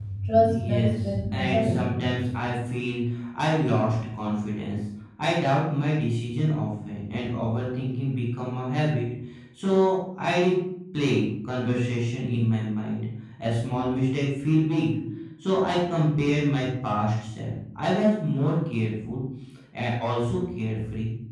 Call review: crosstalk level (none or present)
present